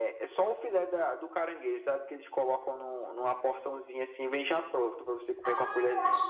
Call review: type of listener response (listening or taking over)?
taking over